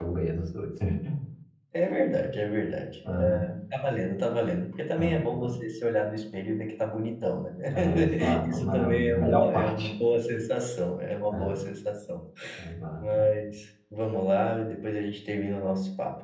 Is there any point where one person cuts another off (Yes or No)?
Yes